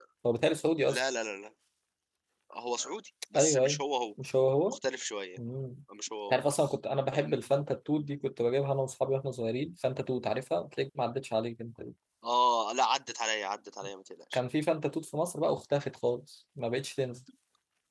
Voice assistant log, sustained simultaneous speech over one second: none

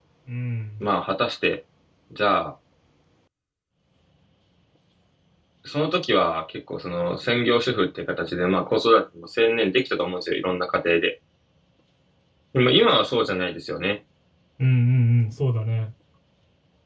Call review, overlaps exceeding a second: none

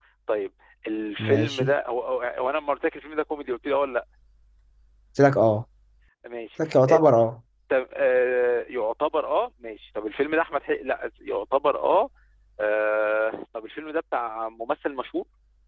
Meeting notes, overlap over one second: none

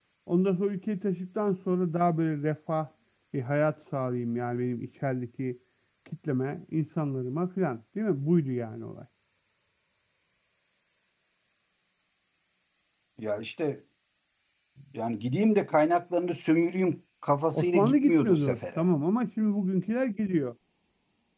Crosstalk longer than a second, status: present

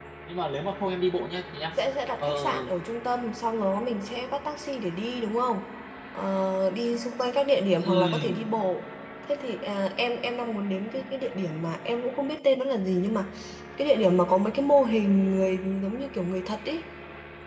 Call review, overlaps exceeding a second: none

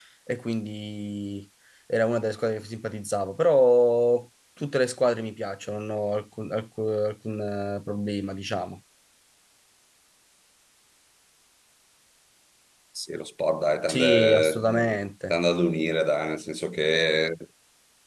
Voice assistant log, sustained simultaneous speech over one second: present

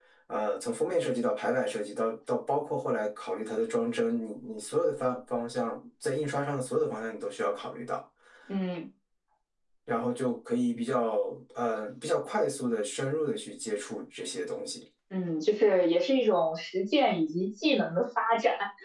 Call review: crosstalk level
none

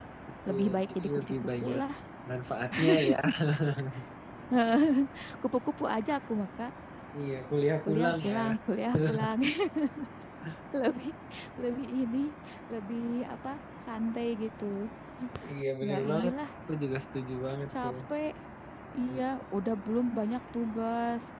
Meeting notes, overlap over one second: present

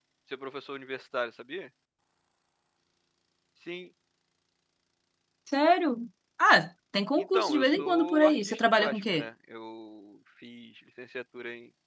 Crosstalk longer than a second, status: present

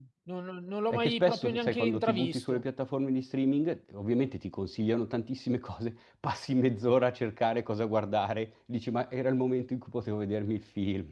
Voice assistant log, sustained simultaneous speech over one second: present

